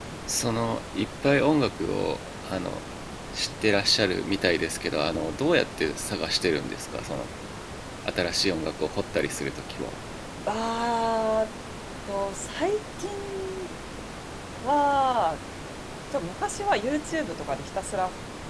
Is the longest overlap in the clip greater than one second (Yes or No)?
No